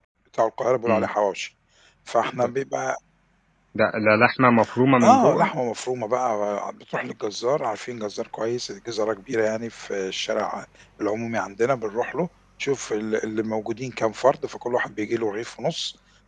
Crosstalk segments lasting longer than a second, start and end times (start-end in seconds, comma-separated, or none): none